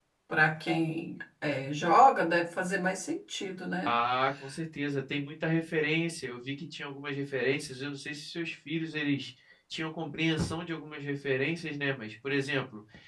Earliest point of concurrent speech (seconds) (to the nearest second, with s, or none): none